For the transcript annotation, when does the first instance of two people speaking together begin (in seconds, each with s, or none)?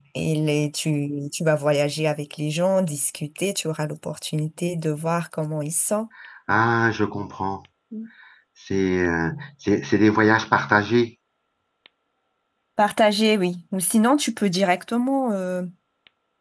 none